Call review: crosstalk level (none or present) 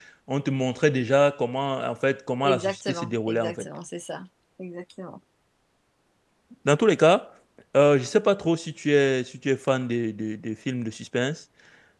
present